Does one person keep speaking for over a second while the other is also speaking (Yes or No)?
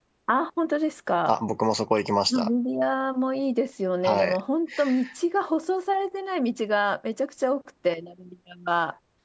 No